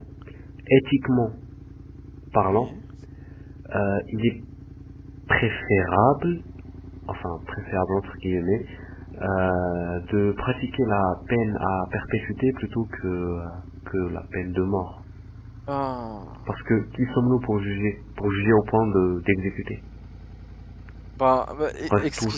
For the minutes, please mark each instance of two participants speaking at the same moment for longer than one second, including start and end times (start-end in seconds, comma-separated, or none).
none